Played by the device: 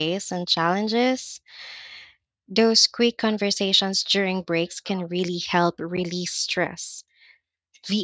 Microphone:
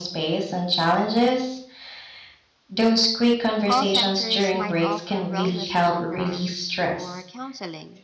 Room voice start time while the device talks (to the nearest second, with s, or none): 4 s